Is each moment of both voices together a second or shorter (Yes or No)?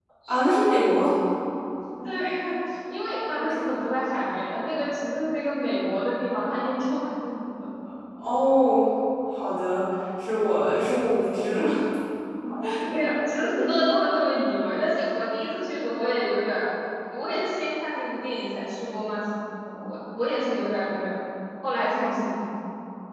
Yes